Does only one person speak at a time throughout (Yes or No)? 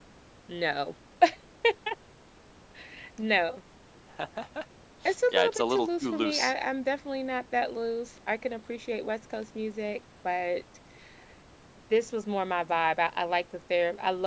No